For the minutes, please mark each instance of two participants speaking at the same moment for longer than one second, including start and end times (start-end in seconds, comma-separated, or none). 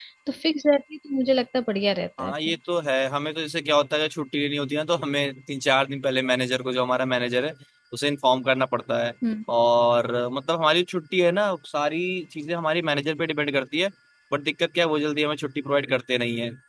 none